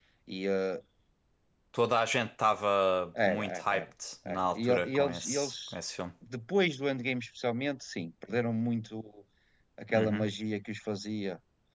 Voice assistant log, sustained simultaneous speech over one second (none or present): present